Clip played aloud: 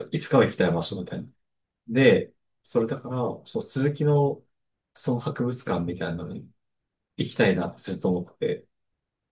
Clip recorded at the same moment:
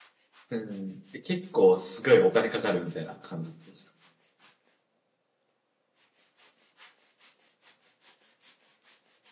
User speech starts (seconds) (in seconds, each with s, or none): 0.5 s